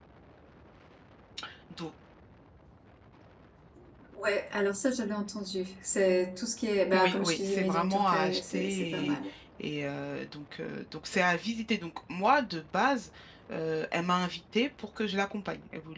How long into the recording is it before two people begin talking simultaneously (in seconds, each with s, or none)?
6.9 s